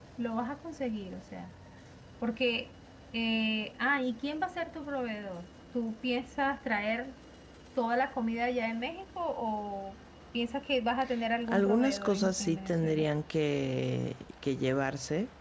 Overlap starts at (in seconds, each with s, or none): 11.5 s